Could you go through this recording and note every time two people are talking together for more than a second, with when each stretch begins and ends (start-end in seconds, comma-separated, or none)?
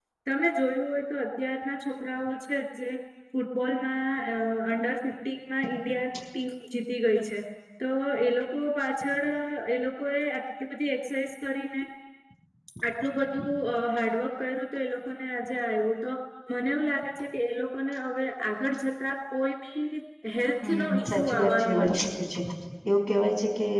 20.6-22.1